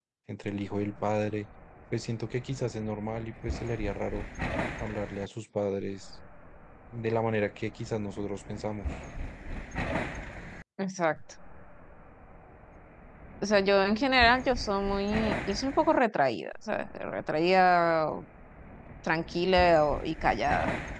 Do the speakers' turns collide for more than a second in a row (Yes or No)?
No